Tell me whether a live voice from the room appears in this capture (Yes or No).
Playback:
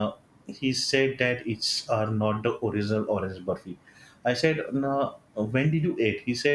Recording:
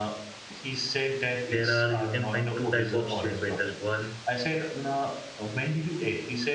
Yes